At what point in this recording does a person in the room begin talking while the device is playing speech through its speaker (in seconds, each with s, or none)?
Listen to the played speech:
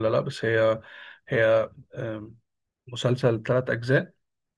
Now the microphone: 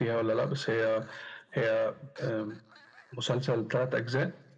none